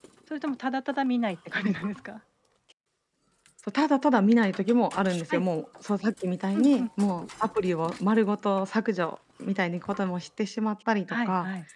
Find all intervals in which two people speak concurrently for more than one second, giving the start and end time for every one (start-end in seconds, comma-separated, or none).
none